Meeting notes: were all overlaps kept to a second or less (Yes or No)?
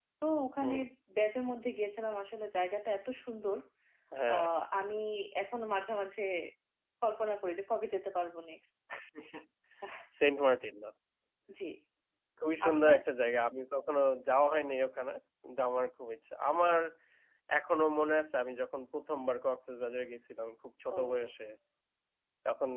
Yes